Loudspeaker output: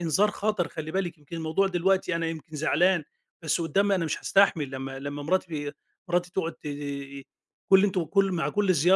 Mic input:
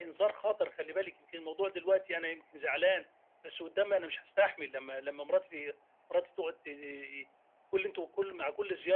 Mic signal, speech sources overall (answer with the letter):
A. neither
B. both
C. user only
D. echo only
D